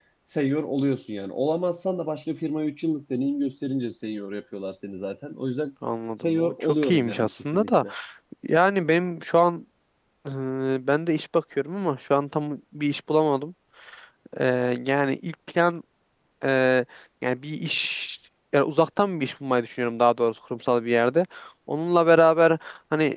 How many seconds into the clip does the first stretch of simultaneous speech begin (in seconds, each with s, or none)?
6.2 s